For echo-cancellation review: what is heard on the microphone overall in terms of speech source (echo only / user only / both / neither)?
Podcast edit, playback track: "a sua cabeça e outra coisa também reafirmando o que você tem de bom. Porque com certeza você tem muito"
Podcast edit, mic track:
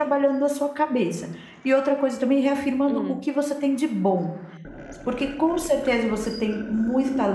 both